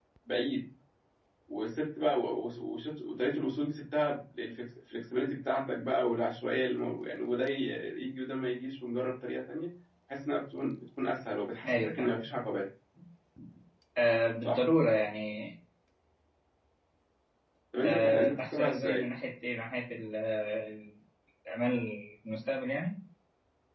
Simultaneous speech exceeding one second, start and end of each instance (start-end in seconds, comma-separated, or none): 17.8-19.1